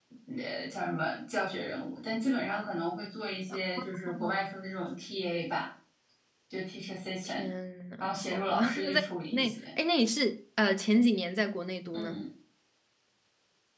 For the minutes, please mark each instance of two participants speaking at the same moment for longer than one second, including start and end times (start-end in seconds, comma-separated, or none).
8.0-9.6